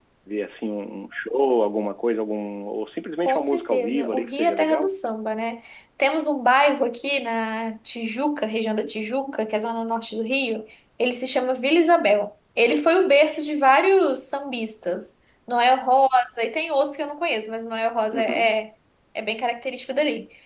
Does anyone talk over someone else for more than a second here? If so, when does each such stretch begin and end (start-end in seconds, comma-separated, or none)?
3.2-4.9